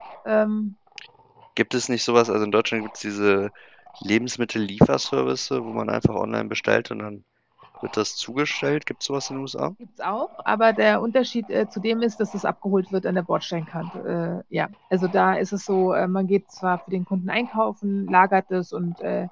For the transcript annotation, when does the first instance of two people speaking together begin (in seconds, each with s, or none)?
none